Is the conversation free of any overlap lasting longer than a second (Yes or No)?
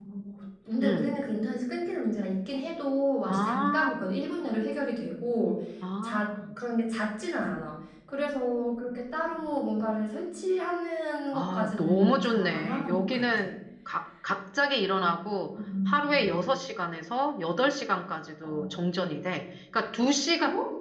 No